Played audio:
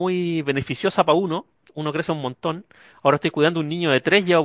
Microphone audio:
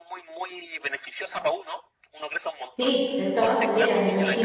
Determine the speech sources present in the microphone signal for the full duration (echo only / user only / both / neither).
both